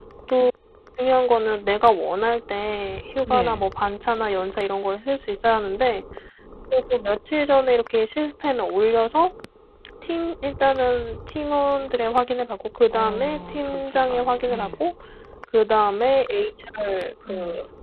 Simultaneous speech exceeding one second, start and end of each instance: 12.9-14.8

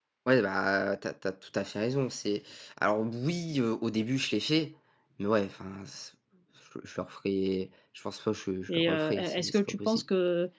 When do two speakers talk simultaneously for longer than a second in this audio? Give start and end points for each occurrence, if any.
8.7-10.0

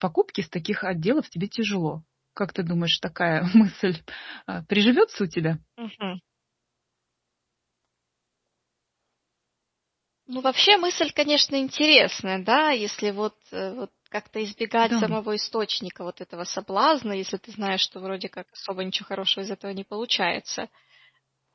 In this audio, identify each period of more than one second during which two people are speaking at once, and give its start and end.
none

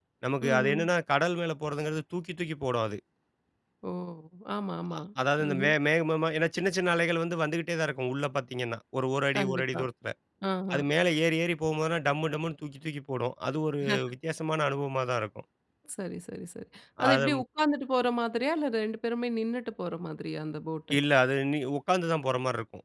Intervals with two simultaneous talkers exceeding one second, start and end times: none

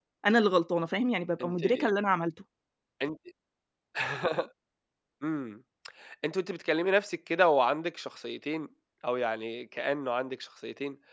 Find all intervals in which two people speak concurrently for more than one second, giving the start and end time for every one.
none

